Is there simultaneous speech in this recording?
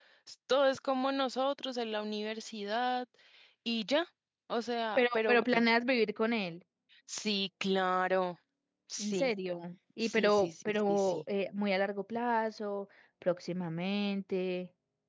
Yes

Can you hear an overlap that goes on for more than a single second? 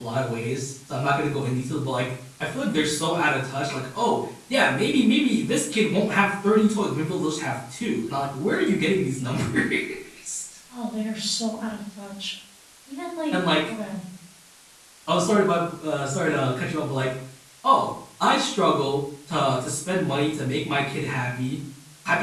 No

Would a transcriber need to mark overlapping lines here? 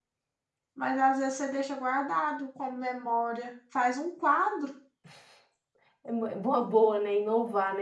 No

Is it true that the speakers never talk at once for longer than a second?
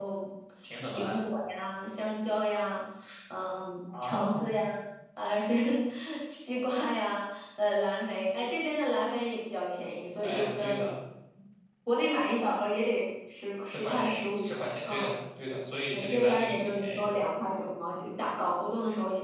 No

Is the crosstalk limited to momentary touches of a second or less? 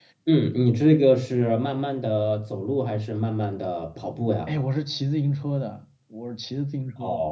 Yes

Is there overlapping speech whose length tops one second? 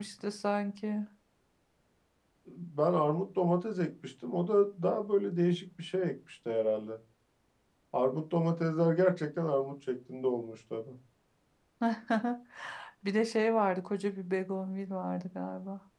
No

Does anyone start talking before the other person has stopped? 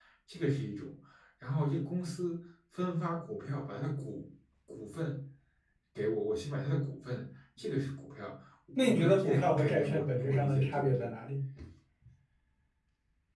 Yes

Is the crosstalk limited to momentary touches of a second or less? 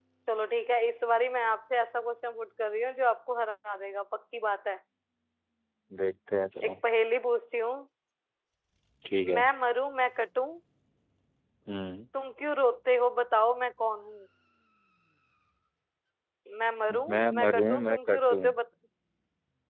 No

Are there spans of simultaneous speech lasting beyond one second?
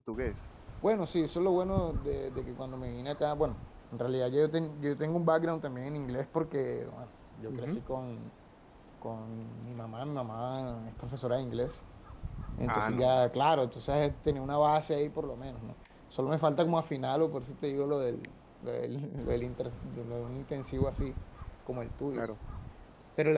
No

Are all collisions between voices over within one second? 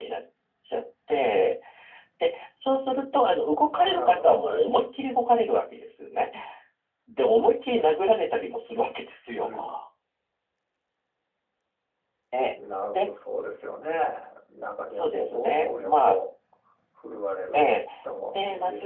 No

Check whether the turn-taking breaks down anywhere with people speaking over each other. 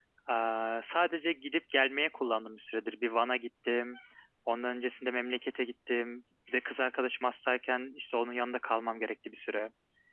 No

